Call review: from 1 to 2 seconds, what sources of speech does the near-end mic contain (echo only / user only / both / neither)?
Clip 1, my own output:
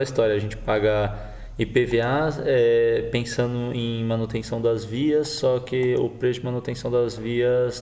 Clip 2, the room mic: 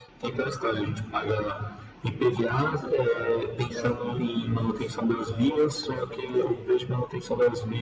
echo only